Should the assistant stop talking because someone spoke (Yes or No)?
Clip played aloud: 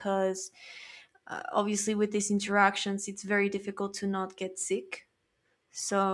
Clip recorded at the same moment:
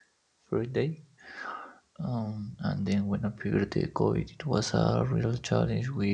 Yes